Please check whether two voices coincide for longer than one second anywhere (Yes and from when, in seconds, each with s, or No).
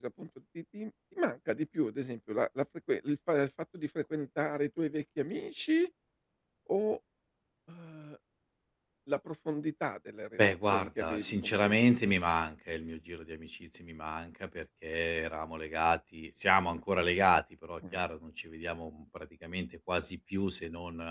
Yes, from 10.4 s